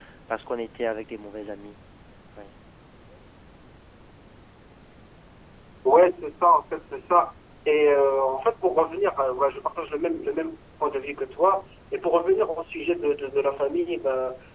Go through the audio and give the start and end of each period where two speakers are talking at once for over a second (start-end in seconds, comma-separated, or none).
none